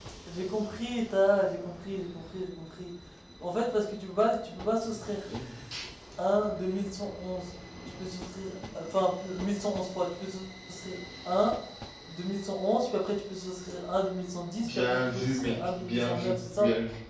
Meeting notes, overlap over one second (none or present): present